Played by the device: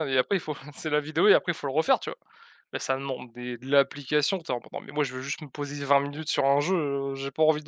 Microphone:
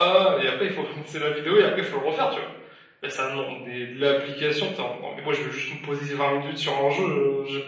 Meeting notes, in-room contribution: none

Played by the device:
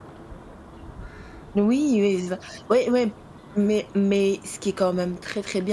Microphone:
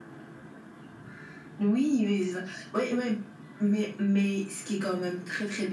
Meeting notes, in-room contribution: none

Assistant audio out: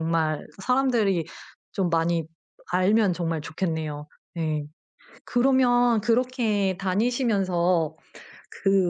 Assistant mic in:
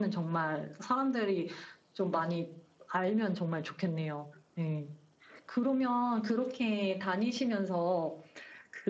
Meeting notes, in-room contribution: none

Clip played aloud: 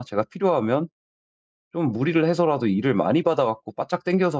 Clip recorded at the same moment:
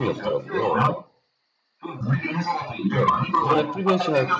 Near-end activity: present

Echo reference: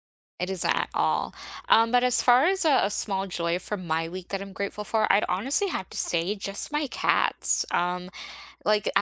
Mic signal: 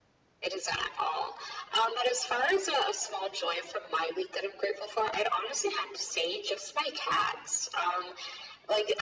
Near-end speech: none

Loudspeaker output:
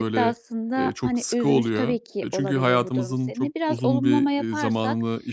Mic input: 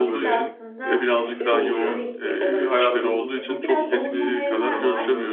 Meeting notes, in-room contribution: present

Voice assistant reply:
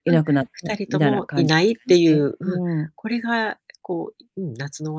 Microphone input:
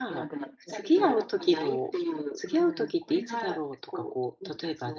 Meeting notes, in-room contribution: present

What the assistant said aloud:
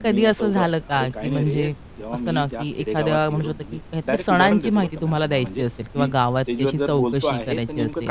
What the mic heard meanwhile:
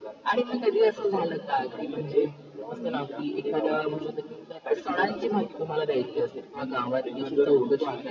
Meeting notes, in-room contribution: none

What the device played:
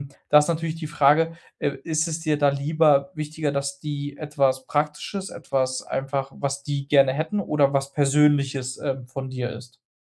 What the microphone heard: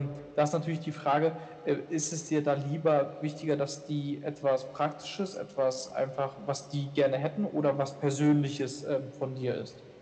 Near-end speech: none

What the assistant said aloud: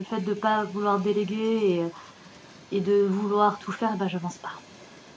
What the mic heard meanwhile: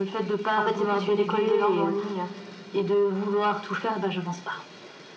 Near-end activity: present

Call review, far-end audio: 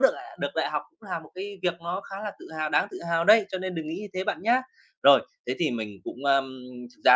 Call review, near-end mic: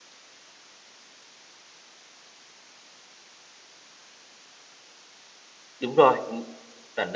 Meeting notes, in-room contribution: present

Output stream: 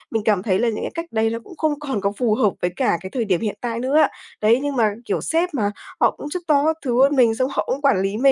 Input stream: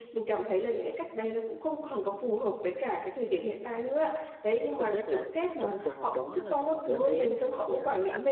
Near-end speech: present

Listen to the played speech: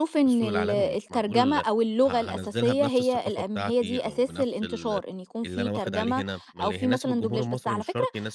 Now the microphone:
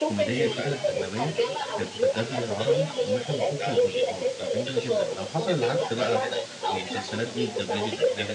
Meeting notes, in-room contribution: present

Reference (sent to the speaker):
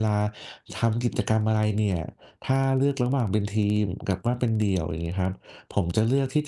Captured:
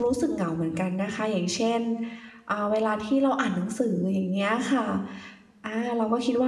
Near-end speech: present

